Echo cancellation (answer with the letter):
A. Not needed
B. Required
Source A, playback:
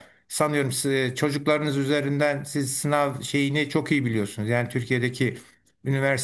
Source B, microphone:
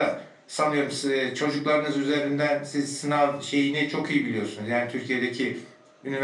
B